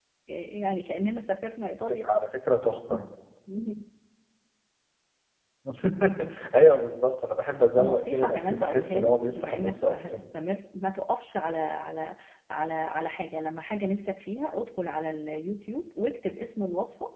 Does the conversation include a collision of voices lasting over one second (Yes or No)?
Yes